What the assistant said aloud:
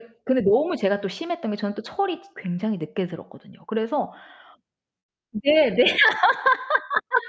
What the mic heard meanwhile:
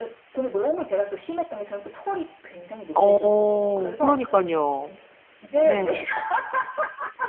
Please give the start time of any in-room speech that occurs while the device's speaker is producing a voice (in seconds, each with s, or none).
2.9 s